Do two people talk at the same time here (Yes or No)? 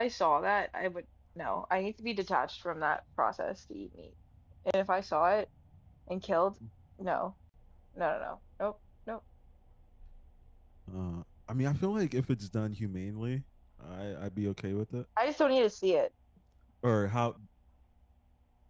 No